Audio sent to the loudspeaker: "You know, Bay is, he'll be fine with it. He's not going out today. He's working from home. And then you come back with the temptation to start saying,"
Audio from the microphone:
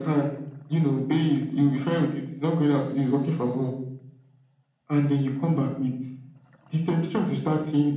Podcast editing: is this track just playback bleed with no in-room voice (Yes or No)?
Yes